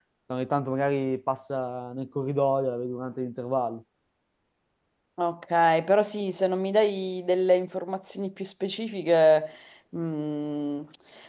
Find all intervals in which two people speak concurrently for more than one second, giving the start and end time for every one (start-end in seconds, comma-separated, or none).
none